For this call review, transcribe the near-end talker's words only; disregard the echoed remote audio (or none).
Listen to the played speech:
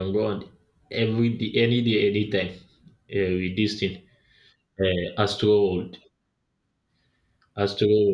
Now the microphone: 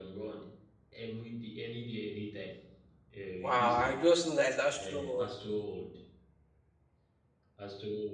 Wow, I just know that it's Astro World.